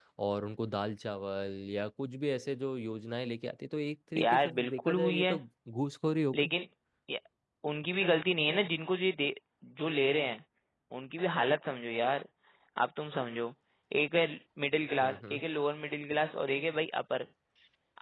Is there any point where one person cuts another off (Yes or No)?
Yes